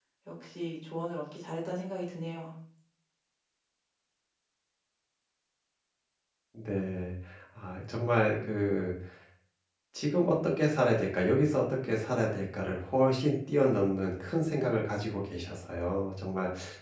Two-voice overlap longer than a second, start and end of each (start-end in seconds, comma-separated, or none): none